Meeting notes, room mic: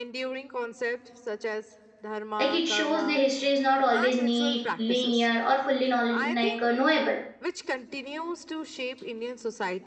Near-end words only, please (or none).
like it shows the history is not always neat linear or fully knowl- like uh, knowable